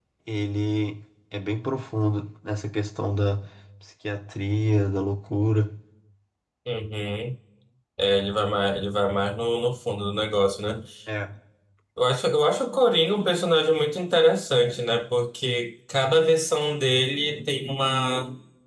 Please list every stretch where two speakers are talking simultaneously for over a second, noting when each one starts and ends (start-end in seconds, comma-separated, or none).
none